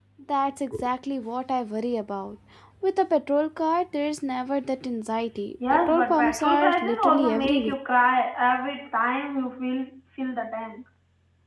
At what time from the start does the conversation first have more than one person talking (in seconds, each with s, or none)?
5.6 s